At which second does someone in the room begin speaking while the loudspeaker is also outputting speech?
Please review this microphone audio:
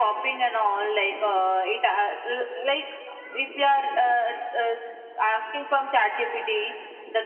none

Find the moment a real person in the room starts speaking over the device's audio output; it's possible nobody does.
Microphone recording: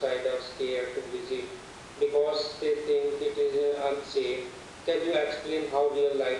none

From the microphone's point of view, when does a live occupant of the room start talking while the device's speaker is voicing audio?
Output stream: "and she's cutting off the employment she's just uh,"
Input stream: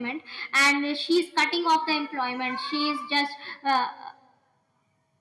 none

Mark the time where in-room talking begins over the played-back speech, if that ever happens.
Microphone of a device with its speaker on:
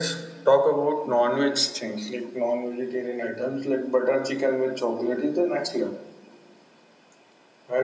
none

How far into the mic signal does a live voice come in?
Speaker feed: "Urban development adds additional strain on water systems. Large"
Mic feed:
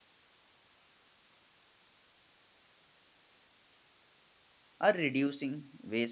4.8 s

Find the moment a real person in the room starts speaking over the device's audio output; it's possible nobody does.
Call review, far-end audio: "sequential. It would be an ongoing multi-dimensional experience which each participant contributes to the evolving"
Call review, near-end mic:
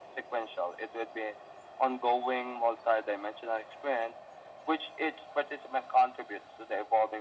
none

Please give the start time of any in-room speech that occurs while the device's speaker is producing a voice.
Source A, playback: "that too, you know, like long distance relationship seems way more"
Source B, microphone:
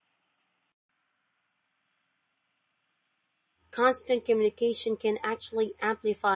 3.7 s

